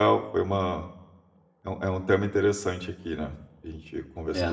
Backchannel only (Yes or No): No